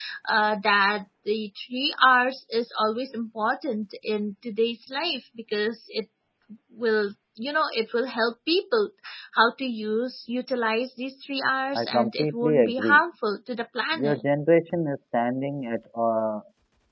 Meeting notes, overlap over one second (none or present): present